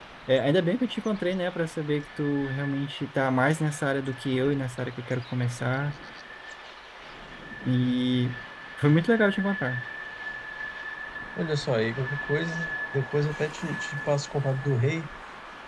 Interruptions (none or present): none